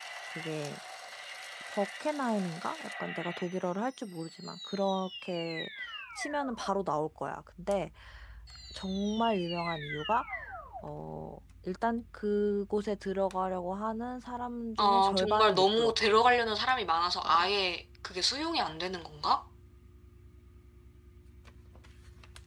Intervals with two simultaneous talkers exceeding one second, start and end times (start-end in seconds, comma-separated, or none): 14.8-16.1